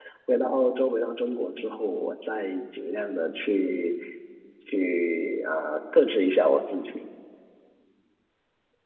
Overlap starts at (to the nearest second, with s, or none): none